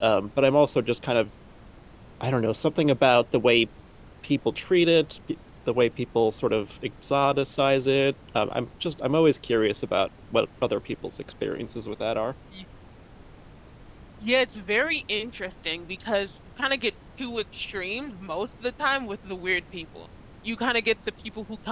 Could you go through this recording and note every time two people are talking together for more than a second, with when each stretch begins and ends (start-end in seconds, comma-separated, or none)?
none